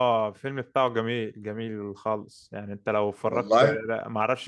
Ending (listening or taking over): listening